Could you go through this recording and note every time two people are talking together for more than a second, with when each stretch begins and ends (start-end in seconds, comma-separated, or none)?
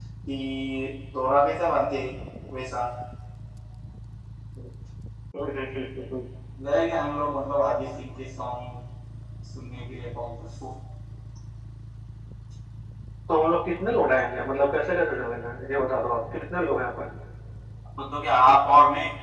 none